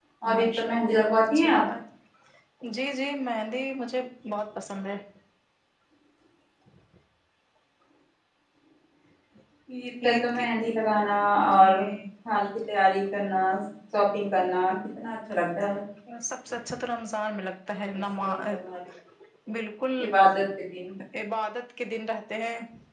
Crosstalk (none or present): present